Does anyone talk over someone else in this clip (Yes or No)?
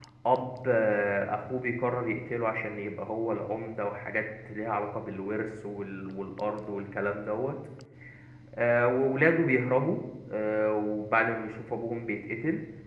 No